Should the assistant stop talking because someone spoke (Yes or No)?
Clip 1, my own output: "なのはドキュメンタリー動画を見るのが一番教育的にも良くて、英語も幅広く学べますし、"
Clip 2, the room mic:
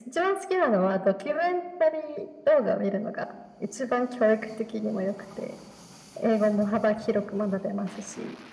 No